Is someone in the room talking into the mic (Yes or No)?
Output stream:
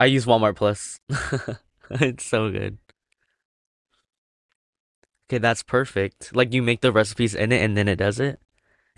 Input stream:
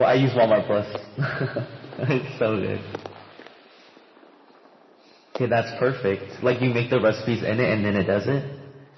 No